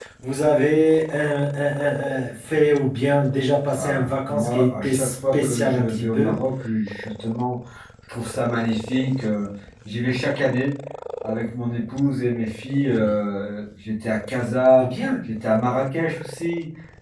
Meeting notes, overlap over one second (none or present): present